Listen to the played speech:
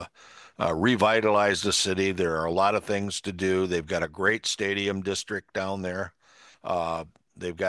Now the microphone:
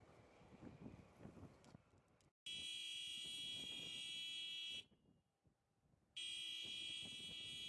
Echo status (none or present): none